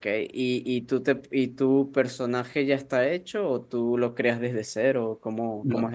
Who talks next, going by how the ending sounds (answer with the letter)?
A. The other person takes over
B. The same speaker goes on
A